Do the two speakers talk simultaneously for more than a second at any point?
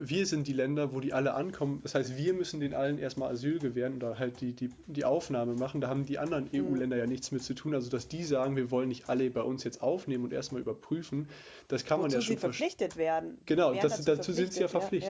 Yes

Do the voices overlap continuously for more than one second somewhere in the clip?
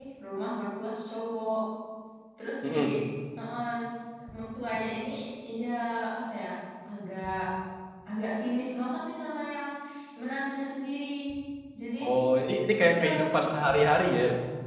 No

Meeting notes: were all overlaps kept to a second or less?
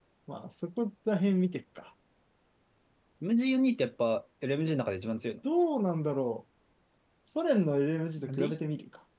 Yes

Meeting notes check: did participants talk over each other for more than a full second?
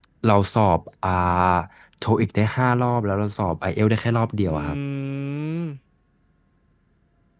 No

